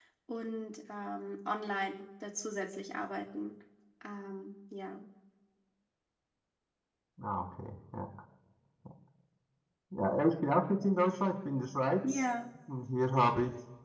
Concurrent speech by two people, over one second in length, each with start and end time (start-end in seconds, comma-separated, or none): none